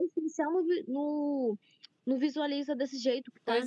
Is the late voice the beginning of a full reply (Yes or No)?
Yes